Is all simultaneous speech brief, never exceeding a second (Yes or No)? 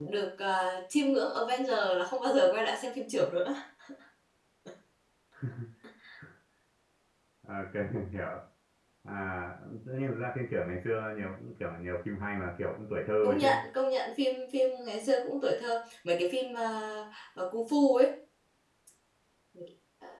Yes